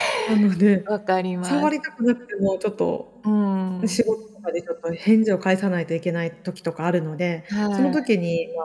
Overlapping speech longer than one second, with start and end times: none

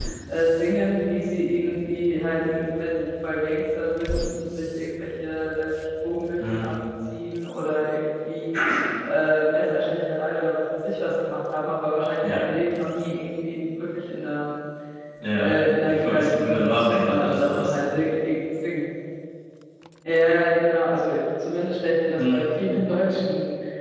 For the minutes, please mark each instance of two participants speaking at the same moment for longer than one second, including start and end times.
15.3-17.7

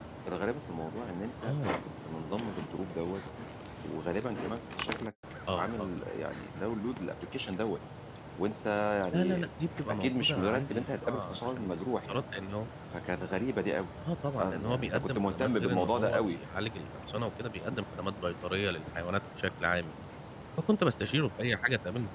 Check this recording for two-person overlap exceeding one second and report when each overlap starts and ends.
9.9-12.2, 14.4-16.4

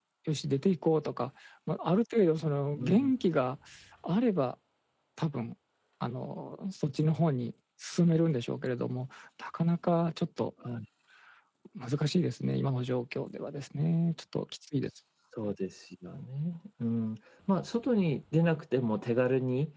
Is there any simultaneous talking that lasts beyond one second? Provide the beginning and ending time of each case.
none

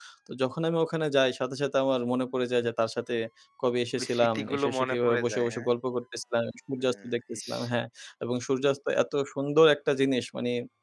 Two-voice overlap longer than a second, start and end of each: 4.0-5.7

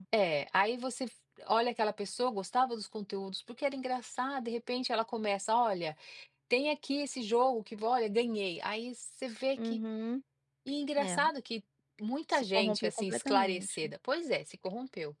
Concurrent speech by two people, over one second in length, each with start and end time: 12.3-13.7

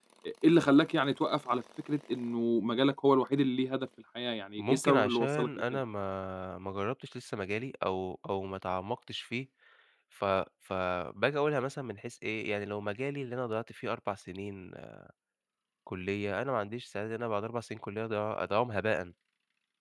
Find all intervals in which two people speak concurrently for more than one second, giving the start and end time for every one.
4.6-5.8

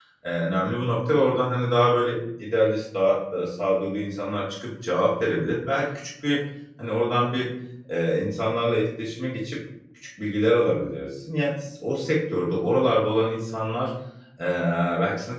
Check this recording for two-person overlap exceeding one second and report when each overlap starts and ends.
none

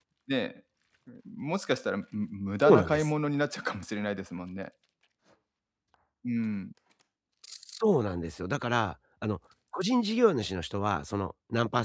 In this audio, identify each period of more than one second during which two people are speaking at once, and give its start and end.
none

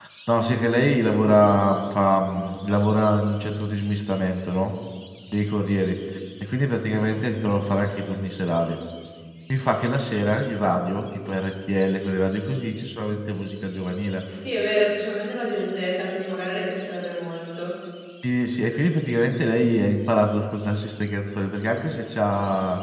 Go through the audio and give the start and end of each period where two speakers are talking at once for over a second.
none

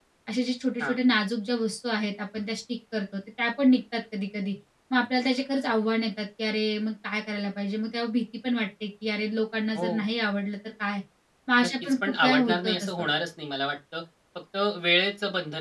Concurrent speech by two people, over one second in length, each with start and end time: 11.6-13.1

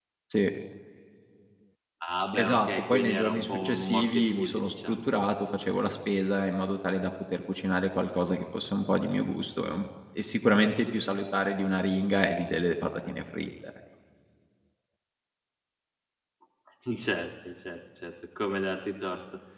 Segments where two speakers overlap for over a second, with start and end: 2.4-5.0

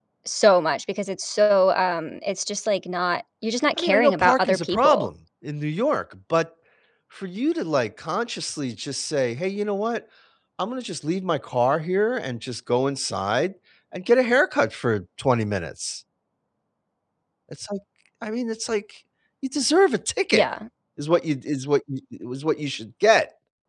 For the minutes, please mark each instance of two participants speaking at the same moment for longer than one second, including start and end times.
3.8-5.1

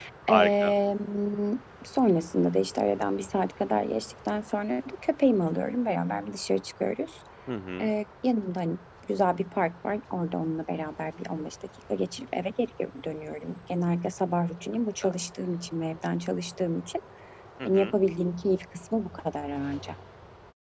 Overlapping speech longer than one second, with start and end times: none

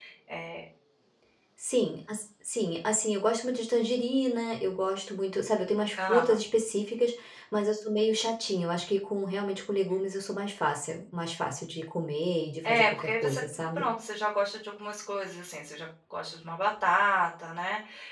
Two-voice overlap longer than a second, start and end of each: 12.6-13.9

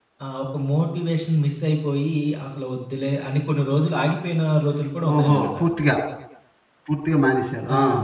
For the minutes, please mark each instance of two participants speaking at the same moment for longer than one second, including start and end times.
none

